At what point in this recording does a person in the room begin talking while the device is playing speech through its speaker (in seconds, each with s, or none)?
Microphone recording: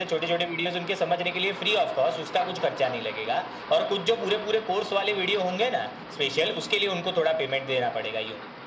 none